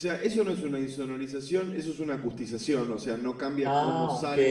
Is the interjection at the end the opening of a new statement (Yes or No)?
No